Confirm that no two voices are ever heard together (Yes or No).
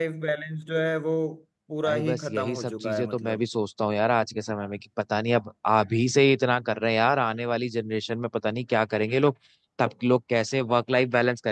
No